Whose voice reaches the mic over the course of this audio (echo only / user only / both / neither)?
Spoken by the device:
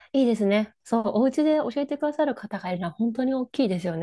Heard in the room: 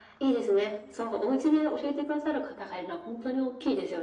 echo only